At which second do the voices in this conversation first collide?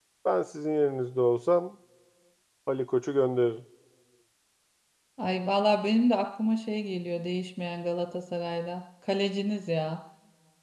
none

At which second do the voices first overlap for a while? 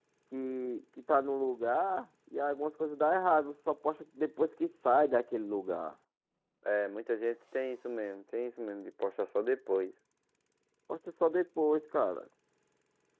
none

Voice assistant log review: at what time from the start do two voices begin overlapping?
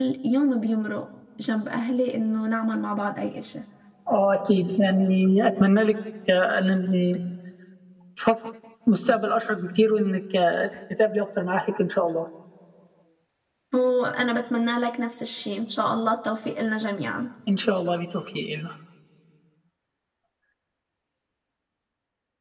none

